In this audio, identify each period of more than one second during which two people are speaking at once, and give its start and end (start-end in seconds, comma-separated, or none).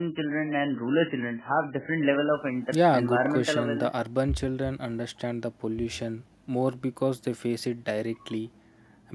2.7-3.9